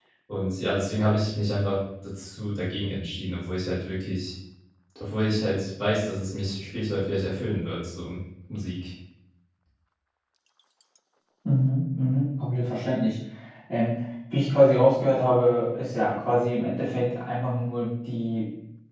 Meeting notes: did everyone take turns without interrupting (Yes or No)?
Yes